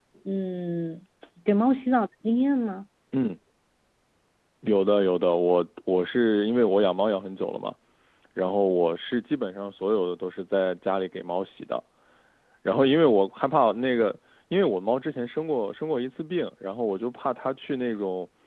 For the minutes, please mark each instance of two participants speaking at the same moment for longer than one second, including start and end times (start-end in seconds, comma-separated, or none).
none